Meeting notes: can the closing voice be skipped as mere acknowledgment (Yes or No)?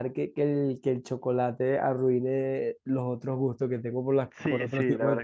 No